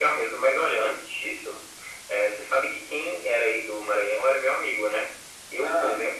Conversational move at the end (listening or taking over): listening